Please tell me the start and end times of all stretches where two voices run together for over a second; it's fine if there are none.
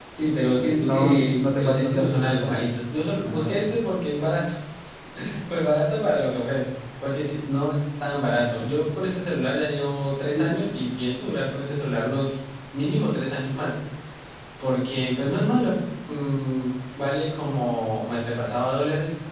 0.8-2.6

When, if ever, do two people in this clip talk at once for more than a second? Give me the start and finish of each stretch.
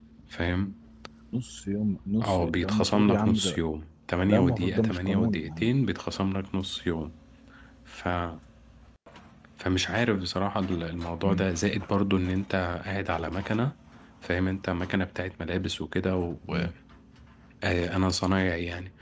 2.2-3.6, 4.3-5.7

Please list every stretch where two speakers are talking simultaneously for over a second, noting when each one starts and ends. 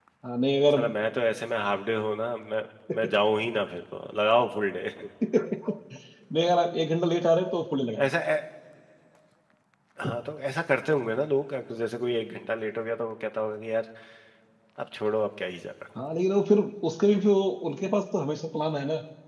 none

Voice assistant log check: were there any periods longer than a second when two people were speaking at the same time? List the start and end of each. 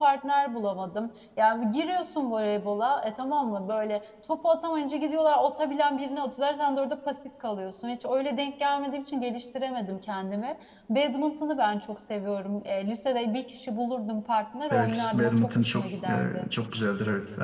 14.7-16.5

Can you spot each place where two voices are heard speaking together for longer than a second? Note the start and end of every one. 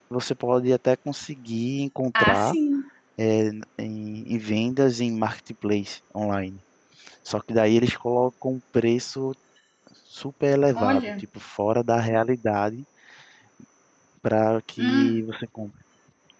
none

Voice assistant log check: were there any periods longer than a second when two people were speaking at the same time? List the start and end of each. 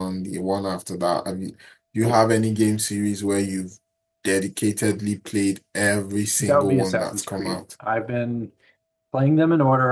6.4-7.6

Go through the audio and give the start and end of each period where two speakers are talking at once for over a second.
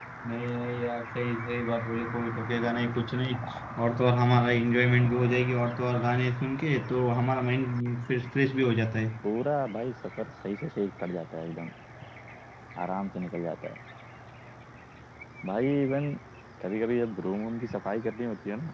none

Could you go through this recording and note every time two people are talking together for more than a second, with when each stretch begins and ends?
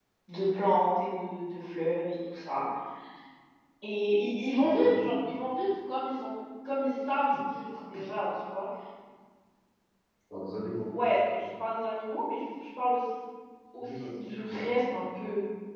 none

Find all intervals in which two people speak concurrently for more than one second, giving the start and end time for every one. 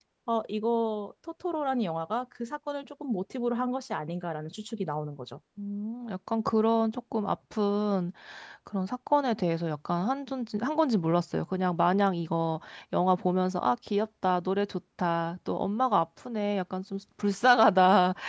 none

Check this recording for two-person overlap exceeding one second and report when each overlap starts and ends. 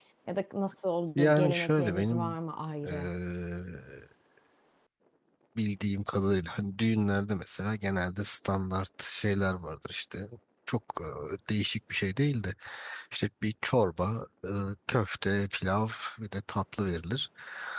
1.1-2.4

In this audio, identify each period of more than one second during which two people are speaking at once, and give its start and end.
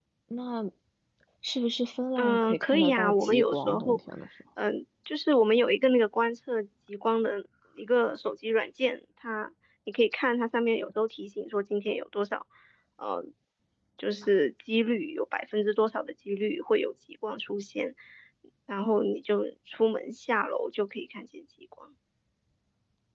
2.2-4.0

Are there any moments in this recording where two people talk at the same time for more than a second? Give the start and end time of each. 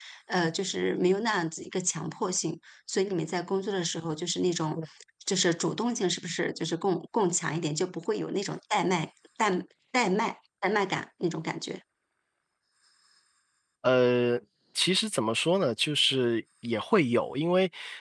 none

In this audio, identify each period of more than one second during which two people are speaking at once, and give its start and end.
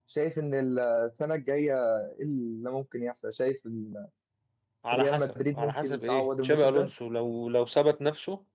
4.9-6.9

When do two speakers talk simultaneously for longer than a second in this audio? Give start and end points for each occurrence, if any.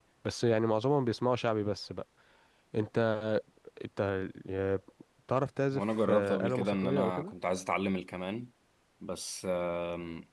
5.7-7.3

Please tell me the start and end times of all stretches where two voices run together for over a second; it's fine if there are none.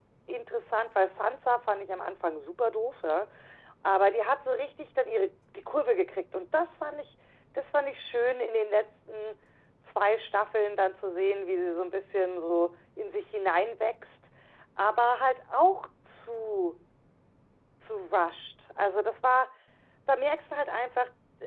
none

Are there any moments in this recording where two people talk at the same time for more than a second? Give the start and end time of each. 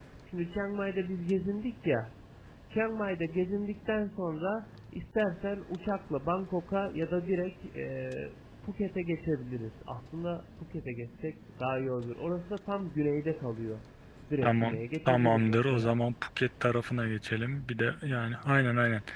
14.4-15.9

